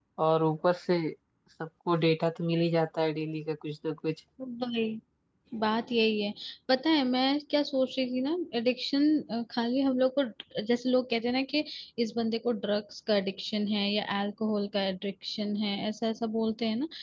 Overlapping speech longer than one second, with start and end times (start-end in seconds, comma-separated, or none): none